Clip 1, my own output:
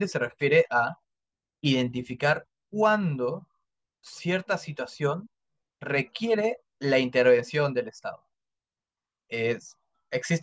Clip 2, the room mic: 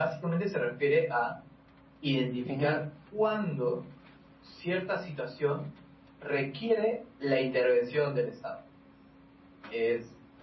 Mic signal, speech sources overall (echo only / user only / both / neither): both